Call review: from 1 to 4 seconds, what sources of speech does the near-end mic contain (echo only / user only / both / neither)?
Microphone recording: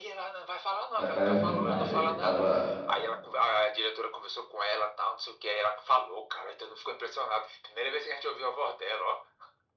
both